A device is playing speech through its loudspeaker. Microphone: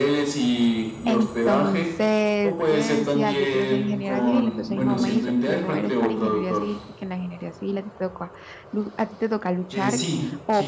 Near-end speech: present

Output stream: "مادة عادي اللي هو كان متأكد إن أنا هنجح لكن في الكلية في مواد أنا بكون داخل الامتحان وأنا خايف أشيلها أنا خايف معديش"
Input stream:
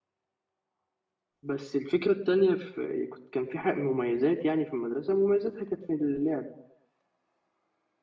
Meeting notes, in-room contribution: present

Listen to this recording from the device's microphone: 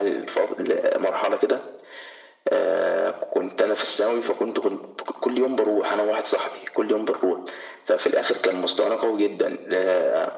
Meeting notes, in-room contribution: none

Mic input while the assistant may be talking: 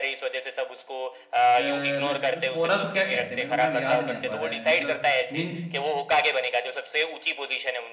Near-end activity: present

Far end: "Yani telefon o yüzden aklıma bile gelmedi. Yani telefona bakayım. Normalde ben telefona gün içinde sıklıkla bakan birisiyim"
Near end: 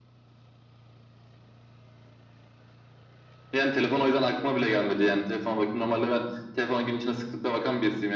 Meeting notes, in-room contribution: none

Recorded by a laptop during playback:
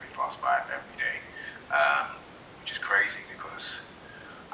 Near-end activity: none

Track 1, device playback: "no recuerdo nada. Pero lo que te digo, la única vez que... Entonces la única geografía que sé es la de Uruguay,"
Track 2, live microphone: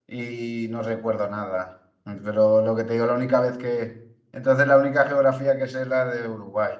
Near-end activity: none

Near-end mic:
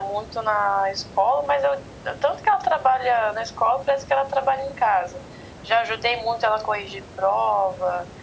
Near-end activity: none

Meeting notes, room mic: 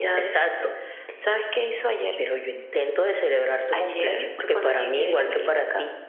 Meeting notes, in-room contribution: none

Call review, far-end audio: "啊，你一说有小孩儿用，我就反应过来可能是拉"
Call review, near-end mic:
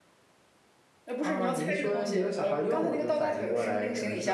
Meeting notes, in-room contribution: present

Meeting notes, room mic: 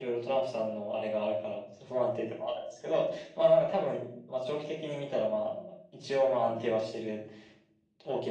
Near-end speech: none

